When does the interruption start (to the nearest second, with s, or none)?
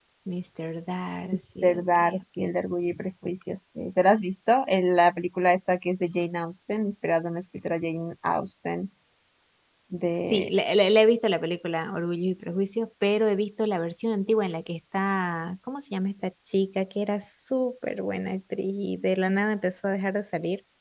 1 s